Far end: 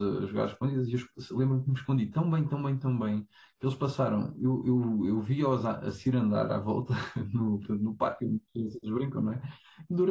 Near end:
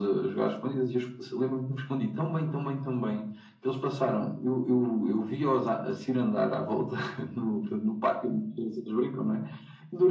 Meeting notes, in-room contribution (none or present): none